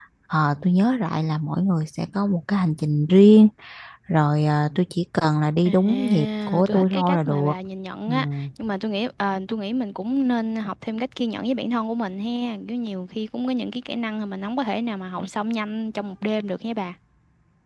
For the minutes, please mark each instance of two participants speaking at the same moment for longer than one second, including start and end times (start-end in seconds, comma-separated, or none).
5.6-7.5